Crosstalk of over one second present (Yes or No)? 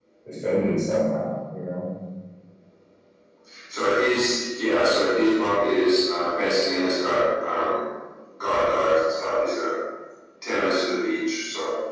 No